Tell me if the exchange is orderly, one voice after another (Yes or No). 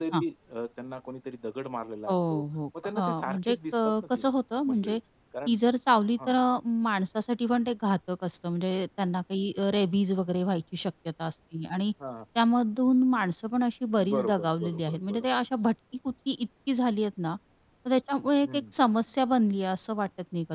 No